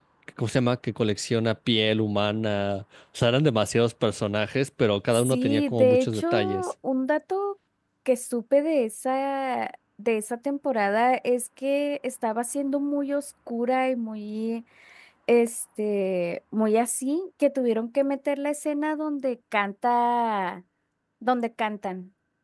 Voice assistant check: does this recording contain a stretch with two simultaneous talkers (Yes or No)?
Yes